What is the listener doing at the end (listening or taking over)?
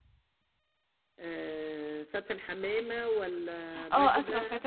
taking over